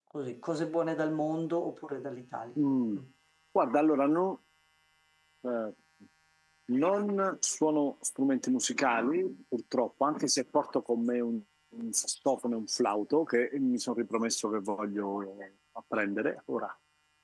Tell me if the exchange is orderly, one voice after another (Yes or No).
Yes